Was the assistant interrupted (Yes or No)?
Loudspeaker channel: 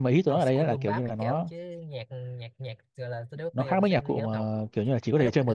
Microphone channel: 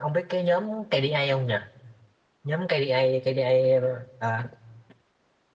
Yes